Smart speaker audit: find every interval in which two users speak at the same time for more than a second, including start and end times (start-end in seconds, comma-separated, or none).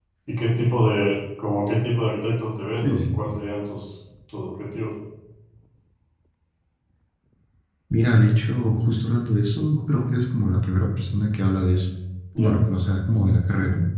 none